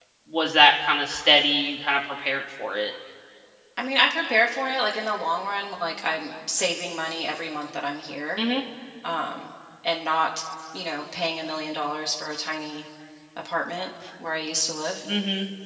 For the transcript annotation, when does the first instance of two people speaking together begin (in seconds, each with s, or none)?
none